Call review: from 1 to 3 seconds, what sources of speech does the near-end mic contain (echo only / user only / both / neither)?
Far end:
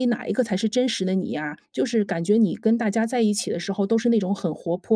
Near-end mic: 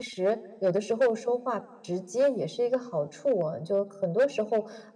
user only